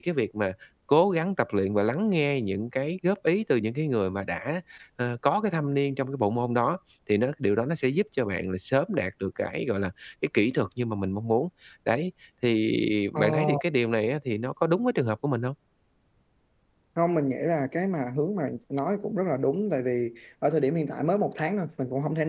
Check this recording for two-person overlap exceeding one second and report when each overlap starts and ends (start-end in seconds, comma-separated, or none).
none